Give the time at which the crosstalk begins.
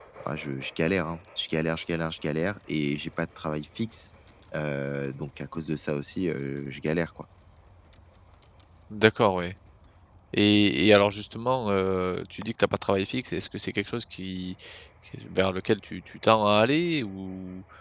none

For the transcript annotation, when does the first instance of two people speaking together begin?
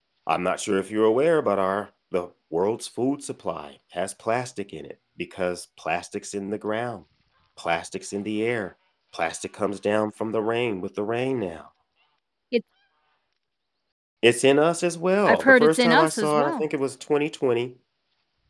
15 s

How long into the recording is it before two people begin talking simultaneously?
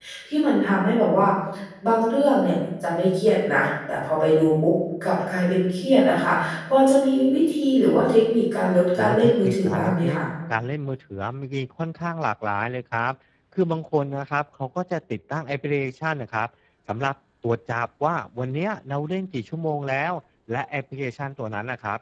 9 s

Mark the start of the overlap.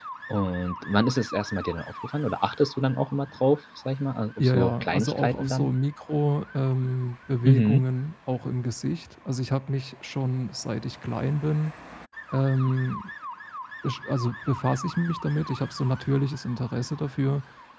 4 s

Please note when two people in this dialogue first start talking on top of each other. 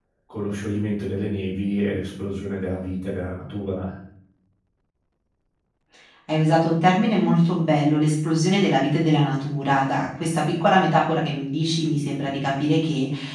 none

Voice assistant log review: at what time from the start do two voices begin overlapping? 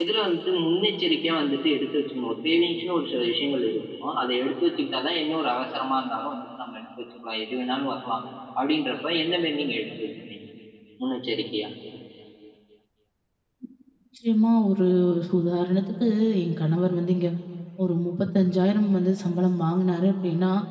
none

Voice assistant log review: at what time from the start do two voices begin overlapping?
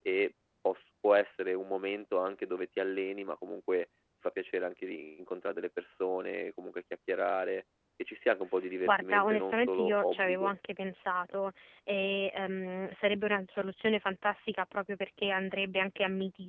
9 s

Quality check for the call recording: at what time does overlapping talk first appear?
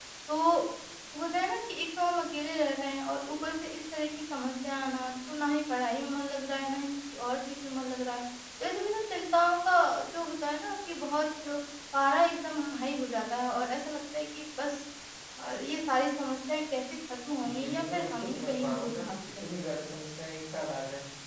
17 s

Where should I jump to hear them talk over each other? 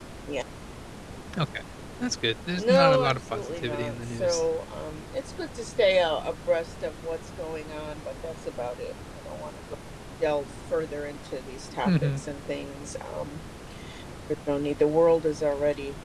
3 s

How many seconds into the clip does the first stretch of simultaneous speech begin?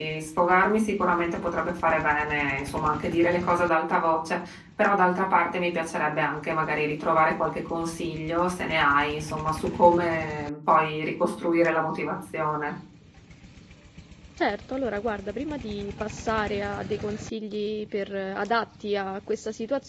none

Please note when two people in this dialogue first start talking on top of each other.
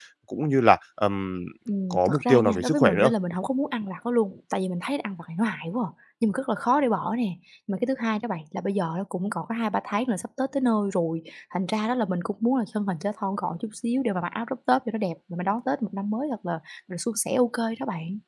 2 s

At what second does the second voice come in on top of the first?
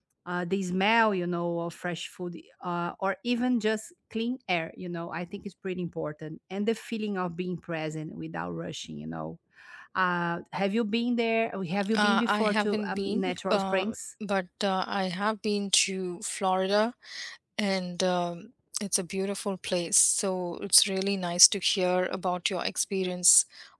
12 s

